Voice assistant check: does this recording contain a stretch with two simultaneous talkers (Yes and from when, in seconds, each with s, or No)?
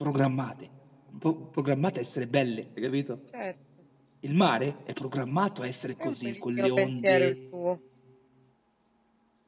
Yes, from 6.0 s